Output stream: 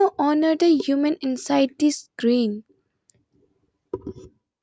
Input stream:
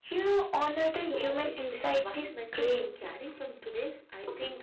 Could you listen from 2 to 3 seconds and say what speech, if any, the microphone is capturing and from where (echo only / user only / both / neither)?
both